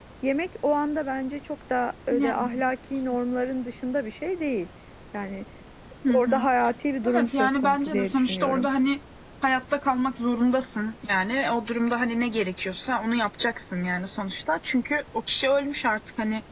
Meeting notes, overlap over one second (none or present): present